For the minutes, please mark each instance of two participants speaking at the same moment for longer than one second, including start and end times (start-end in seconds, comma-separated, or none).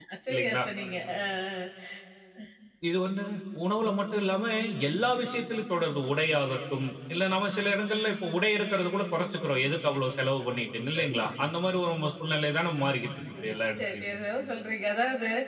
none